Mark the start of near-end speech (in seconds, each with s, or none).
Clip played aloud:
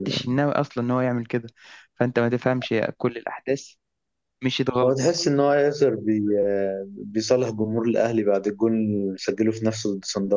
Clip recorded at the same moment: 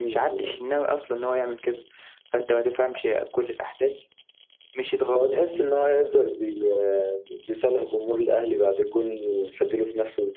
none